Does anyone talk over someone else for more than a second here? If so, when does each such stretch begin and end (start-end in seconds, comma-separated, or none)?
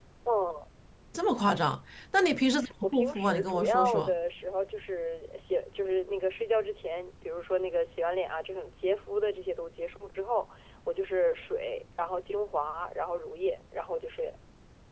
2.8-4.1